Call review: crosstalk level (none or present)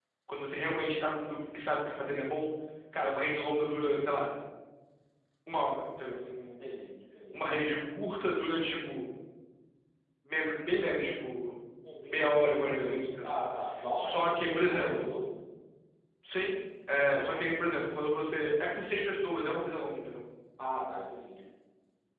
present